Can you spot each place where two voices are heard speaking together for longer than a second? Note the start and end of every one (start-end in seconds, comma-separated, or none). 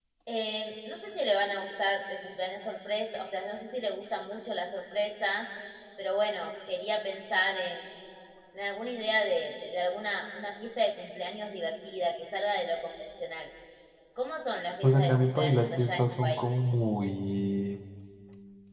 14.8-16.5